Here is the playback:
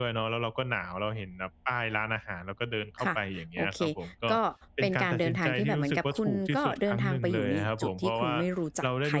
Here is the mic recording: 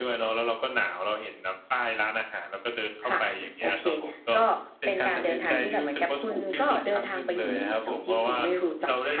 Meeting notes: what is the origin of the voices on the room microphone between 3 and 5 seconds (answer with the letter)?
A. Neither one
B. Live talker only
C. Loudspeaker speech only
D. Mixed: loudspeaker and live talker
C